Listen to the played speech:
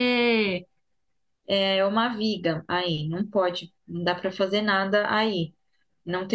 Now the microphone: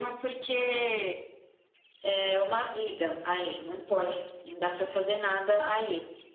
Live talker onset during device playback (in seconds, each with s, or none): none